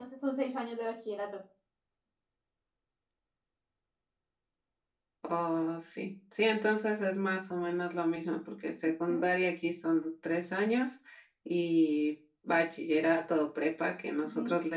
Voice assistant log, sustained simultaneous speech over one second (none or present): none